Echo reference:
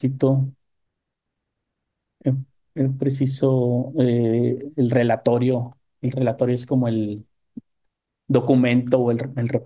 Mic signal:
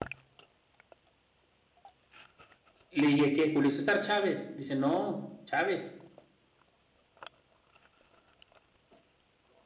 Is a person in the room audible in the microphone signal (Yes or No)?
Yes